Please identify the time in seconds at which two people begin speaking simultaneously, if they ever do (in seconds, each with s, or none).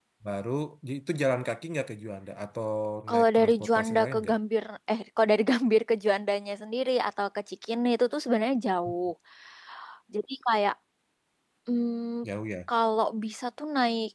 3.1 s